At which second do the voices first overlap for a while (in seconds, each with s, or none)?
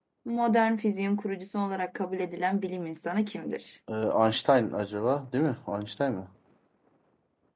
none